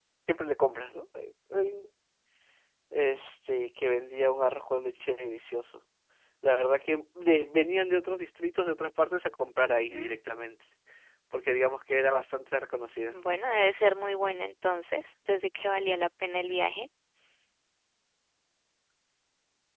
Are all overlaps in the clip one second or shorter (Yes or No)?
Yes